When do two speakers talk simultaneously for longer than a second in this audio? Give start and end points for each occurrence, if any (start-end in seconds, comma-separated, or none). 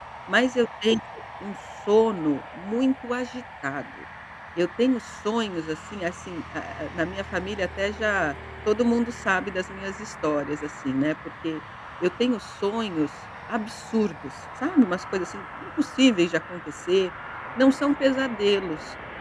none